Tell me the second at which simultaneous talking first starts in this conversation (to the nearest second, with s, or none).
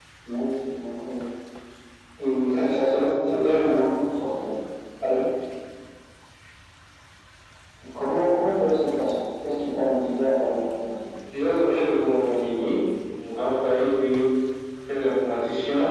3 s